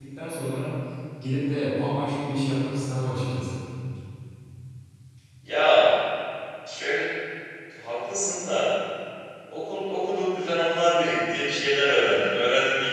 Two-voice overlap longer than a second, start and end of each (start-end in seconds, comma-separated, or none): none